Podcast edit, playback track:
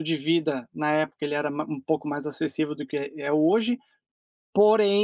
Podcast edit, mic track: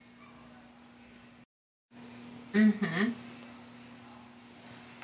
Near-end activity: present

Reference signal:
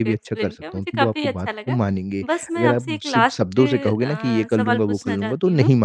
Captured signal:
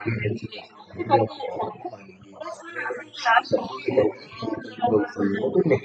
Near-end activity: none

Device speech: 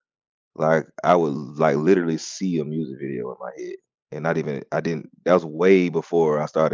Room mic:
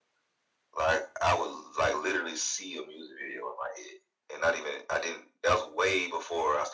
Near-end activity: none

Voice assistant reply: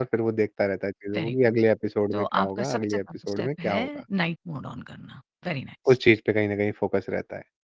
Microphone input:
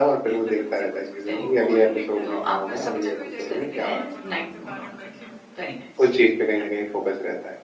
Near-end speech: present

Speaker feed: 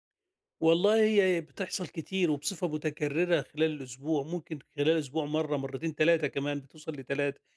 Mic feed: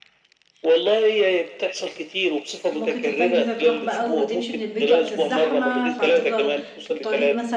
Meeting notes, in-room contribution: present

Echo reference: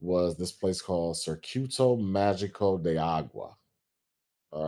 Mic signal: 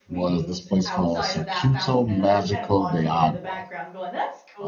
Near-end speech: present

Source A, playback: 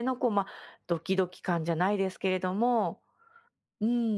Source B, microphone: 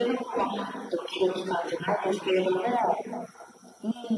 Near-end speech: none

